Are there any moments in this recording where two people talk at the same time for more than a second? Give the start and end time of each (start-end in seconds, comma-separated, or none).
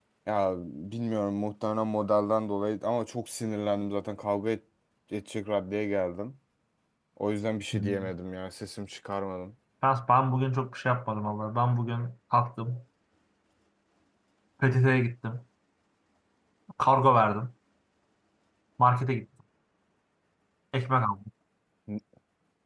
none